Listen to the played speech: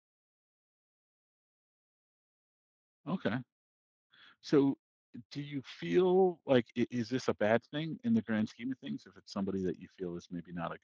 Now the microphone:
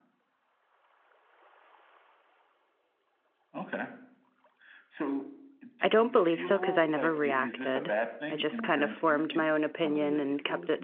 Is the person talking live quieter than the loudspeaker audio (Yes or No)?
No